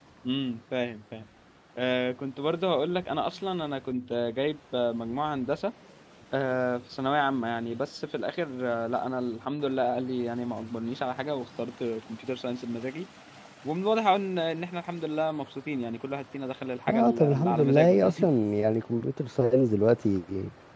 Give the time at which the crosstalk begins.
17 s

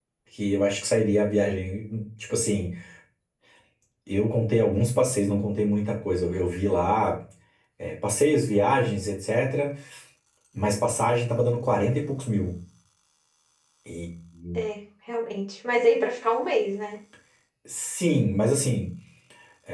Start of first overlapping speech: none

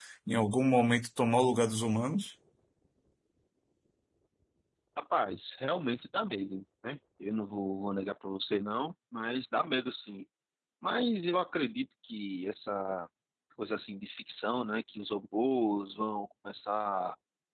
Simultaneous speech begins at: none

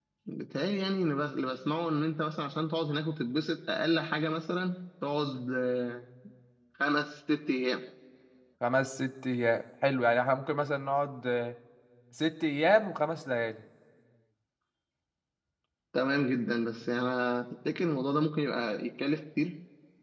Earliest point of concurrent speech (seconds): none

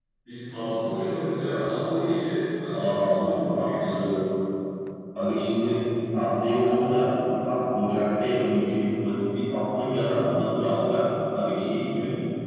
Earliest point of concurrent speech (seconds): 3 s

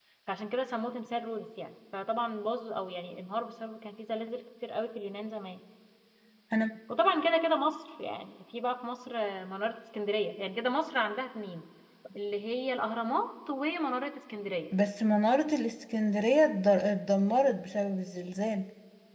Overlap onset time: none

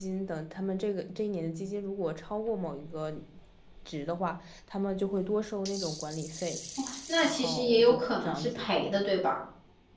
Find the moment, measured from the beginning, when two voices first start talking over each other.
7 s

